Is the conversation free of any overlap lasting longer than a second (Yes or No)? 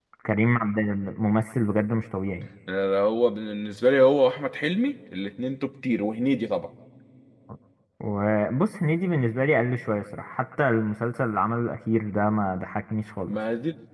Yes